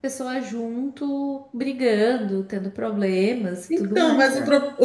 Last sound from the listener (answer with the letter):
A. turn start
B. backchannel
A